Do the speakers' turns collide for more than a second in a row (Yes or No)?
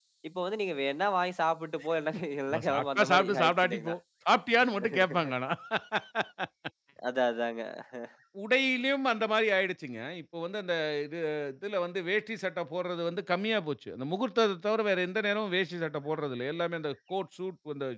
Yes